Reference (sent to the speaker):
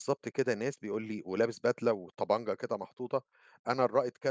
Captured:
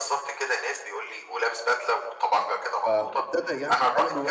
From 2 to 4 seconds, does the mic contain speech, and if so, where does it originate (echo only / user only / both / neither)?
both